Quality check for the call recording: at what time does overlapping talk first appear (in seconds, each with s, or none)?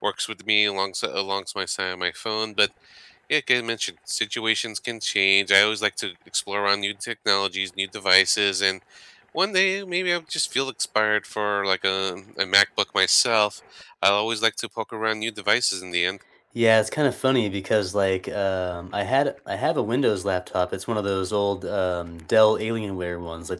none